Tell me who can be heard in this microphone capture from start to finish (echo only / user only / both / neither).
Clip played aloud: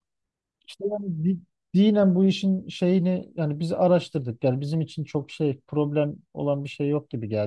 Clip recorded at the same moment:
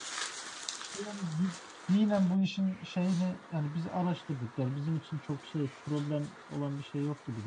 echo only